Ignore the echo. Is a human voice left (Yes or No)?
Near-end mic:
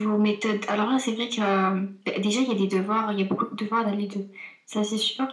No